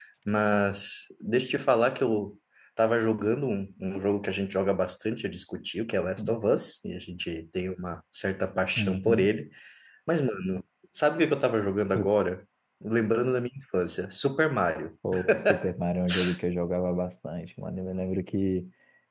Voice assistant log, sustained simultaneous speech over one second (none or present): none